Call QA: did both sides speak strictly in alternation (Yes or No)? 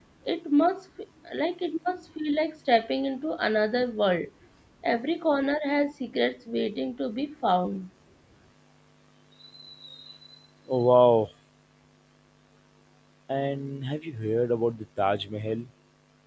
Yes